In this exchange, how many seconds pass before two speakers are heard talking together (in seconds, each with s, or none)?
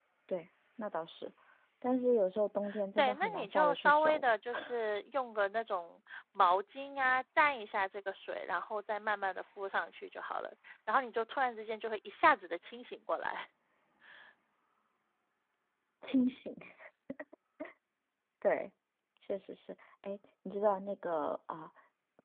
3.0 s